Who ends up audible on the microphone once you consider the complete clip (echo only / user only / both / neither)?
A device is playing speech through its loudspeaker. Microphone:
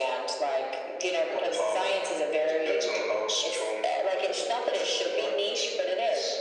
echo only